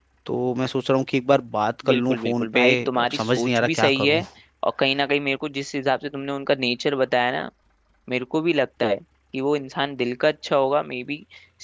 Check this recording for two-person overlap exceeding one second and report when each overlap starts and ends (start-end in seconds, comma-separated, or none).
1.9-4.2